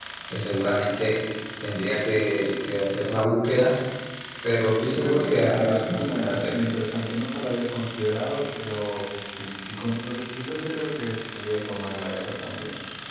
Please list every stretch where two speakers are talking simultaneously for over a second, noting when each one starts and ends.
4.8-6.5

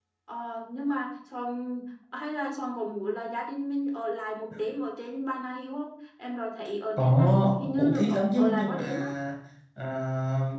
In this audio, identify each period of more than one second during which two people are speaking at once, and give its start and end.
7.0-8.8

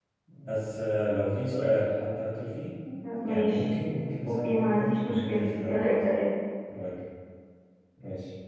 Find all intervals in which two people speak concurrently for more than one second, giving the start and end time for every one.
4.3-5.9

